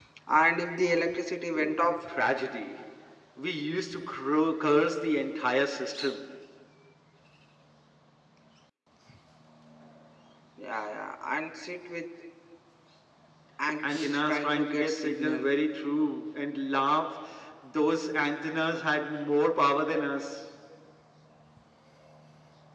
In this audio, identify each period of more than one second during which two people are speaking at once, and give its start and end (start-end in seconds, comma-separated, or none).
13.8-15.5